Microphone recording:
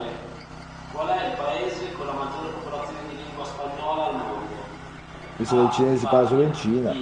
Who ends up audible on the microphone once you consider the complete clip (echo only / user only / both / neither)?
both